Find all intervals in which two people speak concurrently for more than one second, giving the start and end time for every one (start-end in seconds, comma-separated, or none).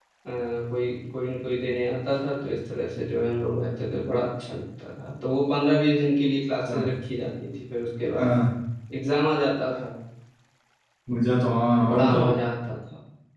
none